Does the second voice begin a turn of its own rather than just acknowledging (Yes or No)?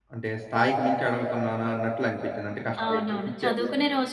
Yes